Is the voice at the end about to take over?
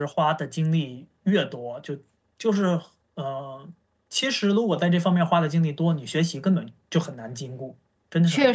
Yes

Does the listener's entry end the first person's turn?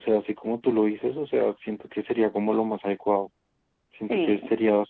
No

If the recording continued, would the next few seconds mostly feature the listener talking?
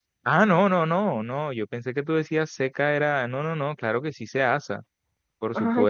Yes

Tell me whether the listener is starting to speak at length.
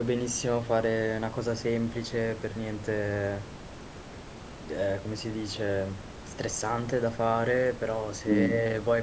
No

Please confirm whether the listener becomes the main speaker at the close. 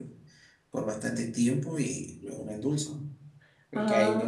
No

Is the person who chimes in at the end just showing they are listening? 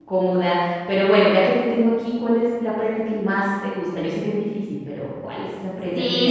No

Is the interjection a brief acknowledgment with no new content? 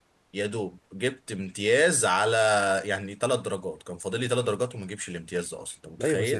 No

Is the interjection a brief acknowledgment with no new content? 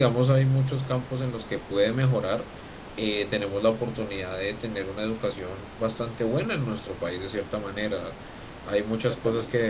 Yes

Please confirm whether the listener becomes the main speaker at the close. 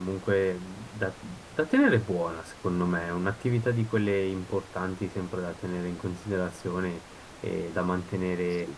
No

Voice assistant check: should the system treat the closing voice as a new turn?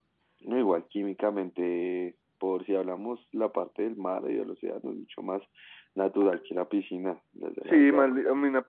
Yes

